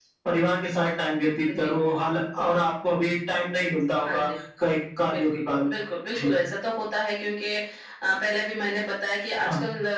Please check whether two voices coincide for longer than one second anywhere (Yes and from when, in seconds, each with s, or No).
No